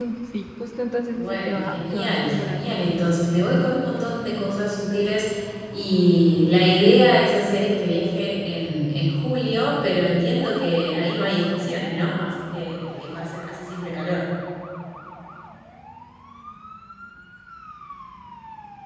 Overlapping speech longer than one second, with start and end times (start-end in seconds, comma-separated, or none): 1.1-2.6